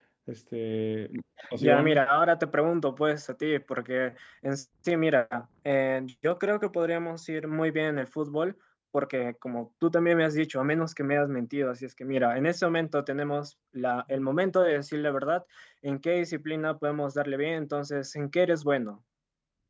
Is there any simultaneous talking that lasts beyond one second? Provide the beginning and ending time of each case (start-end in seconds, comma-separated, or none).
none